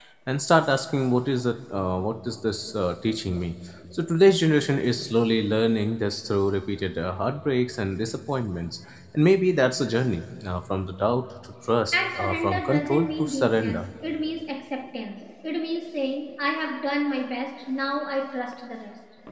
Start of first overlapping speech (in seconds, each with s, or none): 11.9 s